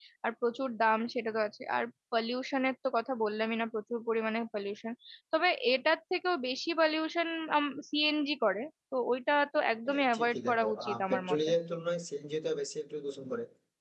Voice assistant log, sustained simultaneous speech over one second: present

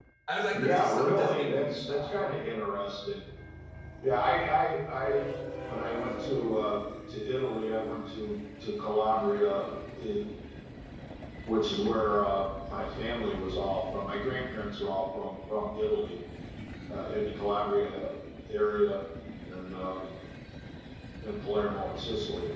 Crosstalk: present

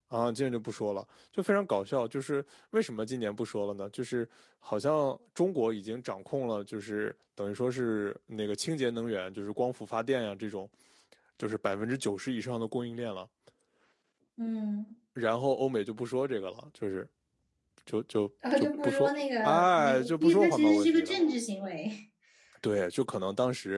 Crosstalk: present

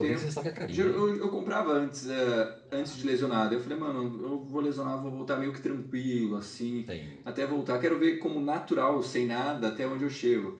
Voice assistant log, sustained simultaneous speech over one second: none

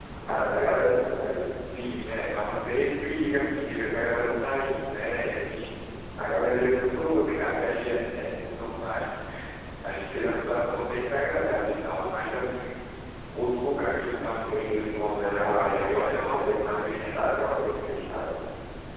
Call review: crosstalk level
present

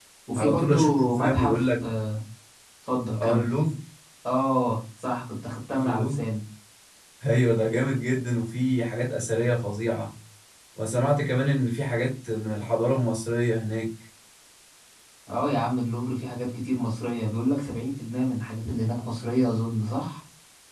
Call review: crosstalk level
present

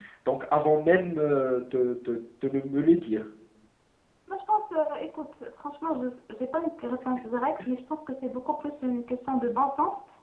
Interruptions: none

